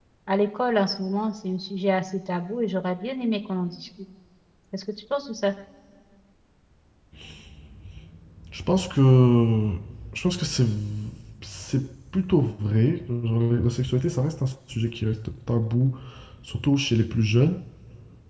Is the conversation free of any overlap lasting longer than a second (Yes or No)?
Yes